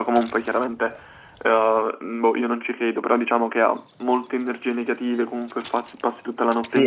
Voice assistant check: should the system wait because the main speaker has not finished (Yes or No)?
No